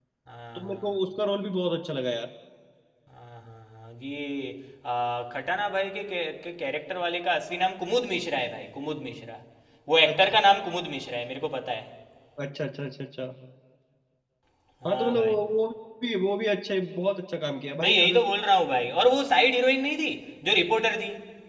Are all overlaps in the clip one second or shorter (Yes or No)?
Yes